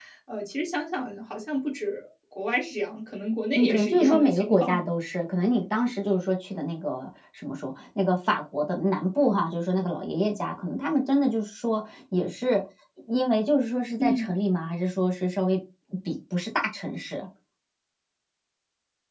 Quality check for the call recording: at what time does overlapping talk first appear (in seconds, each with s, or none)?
3.5 s